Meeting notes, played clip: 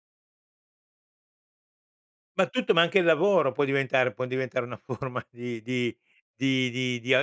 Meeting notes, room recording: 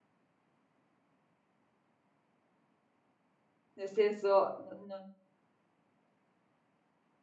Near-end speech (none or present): present